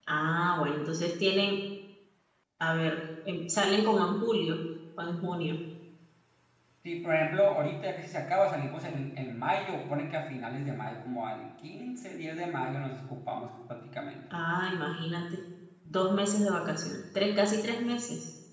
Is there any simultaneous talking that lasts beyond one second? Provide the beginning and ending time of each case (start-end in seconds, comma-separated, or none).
none